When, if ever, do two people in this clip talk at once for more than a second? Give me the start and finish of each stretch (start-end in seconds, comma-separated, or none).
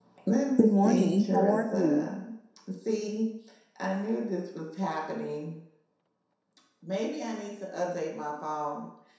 0.6-2.1